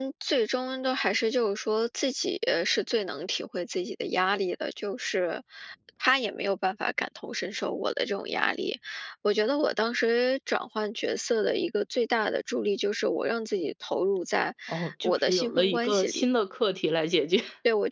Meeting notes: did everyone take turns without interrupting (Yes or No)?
No